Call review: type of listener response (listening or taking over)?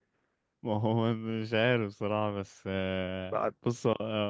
listening